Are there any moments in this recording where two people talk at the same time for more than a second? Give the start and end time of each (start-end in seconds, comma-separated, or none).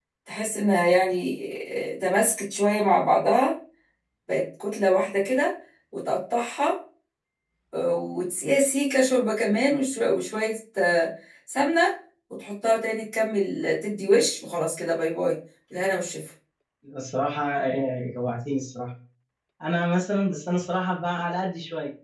none